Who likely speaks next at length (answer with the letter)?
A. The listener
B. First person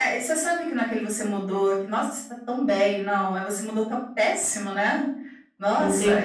A